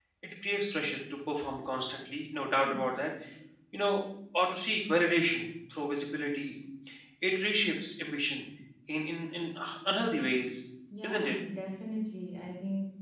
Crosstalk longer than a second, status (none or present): none